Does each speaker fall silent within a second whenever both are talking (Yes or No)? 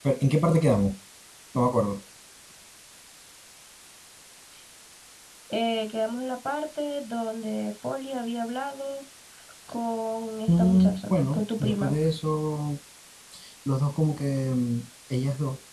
No